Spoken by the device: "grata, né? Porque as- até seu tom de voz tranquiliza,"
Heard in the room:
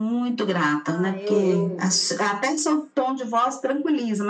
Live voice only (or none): Ah, eu, eu,